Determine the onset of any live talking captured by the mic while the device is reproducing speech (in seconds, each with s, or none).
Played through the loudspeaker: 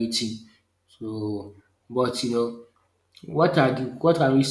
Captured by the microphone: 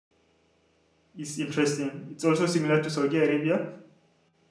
1.2 s